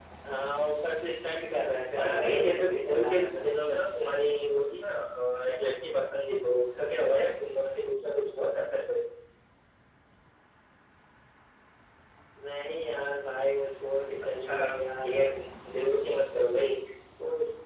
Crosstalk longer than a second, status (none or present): present